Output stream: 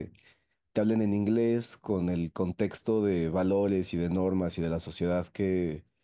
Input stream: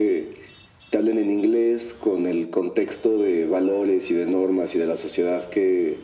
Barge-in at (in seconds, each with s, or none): none